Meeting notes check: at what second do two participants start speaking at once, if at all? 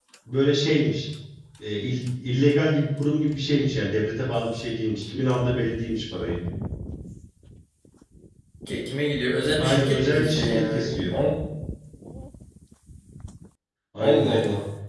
9.6 s

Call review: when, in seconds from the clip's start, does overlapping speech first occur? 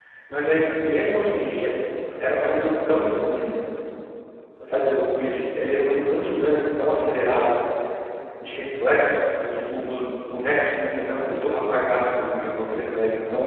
none

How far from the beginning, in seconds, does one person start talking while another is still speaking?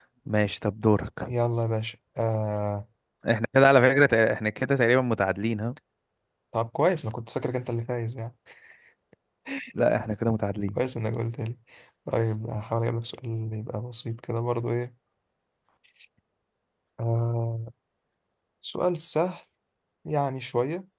none

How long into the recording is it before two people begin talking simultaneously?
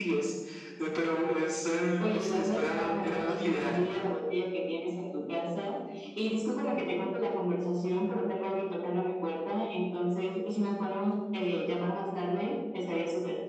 2.0 s

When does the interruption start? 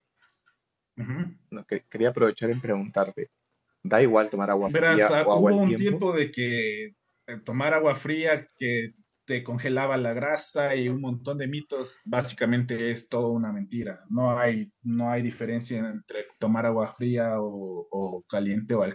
4.7 s

